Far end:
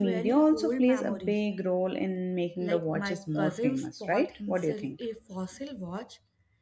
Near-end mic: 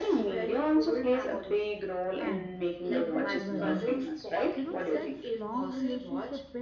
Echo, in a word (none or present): present